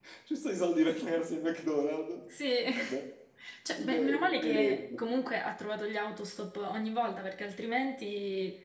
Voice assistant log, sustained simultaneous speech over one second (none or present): present